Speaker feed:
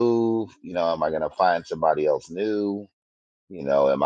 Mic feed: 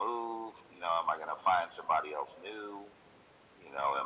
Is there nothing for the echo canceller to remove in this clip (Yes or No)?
No